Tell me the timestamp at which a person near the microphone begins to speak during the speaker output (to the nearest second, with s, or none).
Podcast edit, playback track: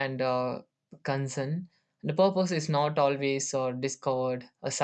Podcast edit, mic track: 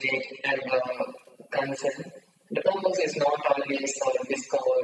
none